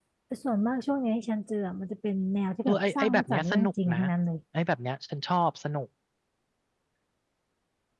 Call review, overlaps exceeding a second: present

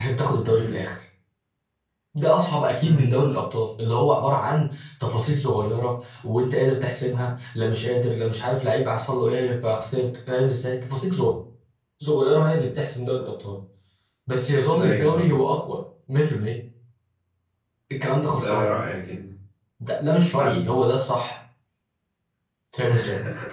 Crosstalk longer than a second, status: none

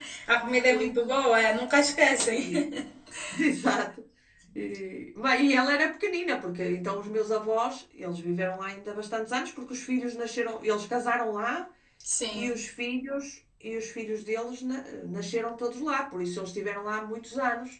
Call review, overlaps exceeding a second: none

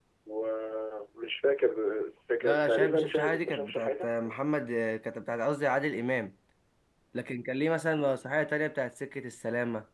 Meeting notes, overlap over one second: present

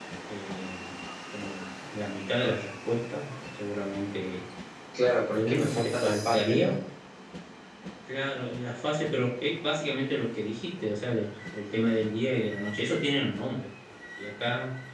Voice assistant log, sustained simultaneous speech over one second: present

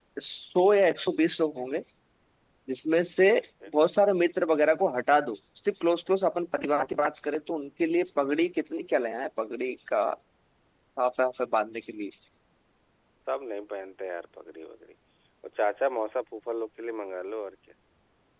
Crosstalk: none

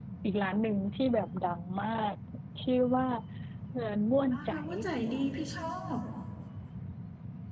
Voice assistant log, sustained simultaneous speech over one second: none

